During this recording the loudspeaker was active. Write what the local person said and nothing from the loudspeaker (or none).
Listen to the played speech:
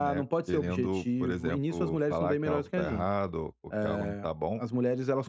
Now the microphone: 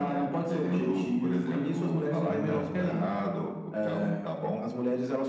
Uhum.